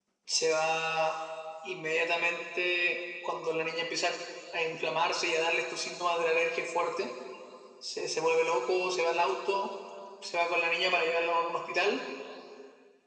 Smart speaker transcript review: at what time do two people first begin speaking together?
none

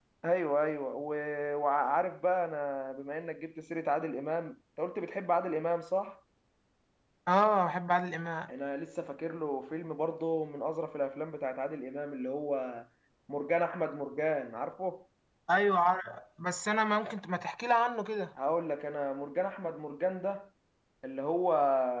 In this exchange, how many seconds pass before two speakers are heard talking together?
none

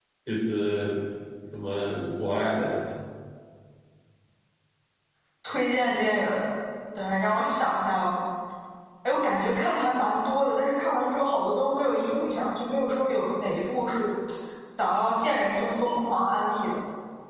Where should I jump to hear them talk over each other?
none

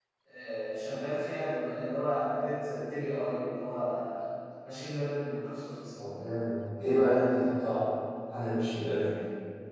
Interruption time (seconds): none

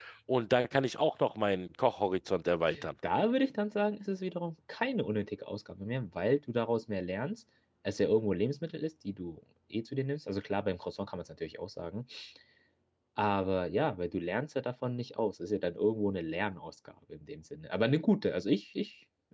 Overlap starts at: none

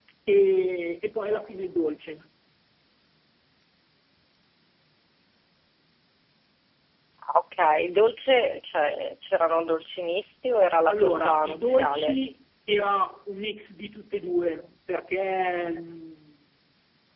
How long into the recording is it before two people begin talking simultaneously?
10.9 s

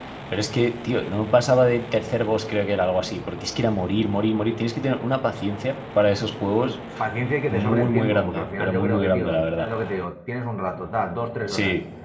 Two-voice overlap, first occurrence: 7.5 s

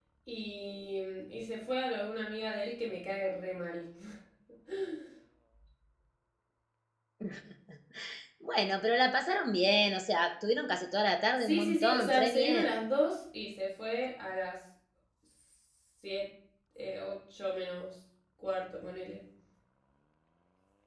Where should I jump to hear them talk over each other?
11.4 s

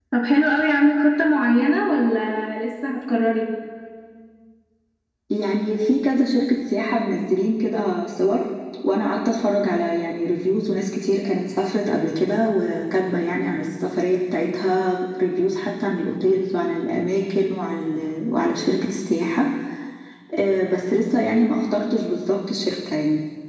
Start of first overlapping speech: none

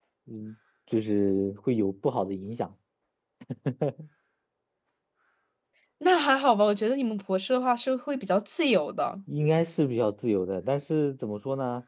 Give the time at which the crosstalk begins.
none

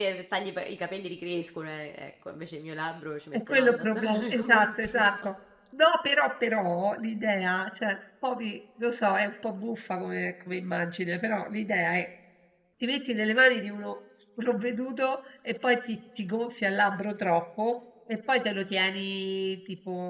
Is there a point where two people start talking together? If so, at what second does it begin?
3.3 s

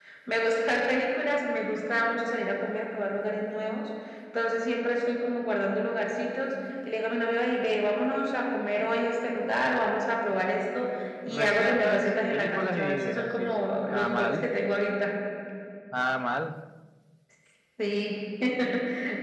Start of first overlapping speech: 11.3 s

